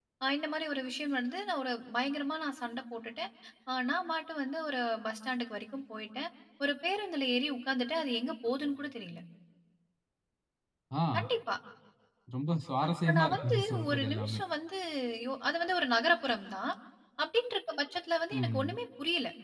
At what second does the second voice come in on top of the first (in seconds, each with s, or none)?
12.8 s